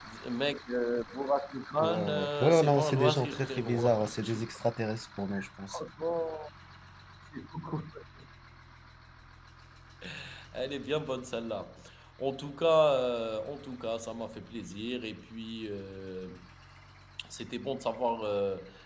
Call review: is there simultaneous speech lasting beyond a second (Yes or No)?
Yes